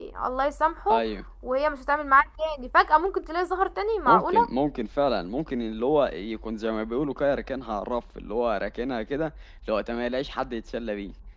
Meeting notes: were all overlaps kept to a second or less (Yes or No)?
Yes